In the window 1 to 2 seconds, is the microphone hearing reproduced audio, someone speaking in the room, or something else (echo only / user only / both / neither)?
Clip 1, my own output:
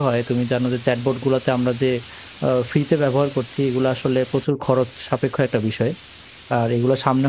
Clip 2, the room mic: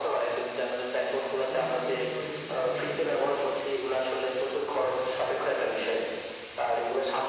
both